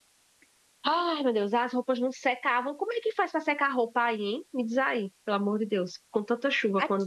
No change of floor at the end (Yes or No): No